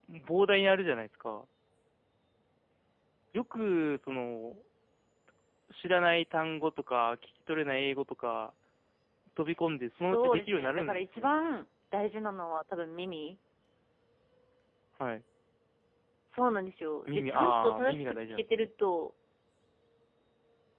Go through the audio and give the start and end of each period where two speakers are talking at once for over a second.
10.0-11.3, 17.1-18.7

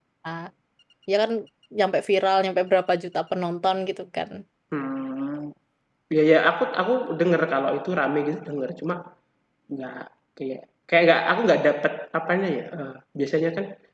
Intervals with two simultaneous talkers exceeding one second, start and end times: none

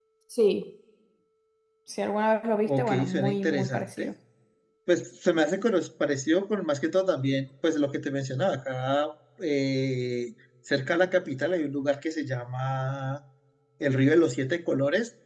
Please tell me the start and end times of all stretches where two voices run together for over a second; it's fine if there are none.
2.6-4.1

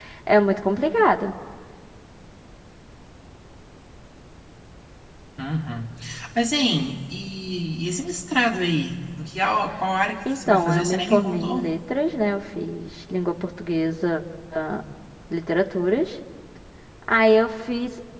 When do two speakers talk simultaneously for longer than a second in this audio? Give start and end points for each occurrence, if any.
10.3-11.7

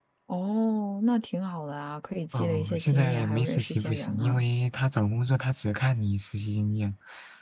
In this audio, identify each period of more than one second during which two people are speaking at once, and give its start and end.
2.3-4.4

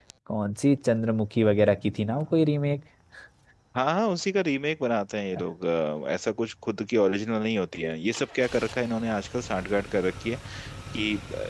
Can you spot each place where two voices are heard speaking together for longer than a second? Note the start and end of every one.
none

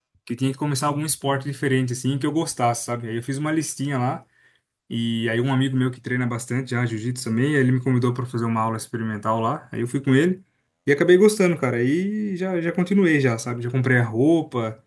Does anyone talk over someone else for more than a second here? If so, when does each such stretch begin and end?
none

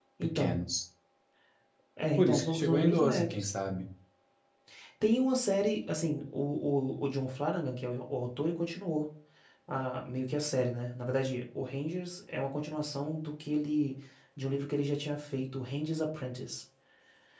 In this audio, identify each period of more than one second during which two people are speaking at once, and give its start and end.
2.2-3.5

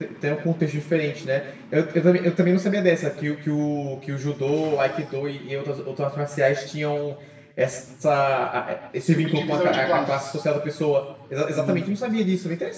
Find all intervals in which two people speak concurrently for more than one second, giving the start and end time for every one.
9.0-10.3

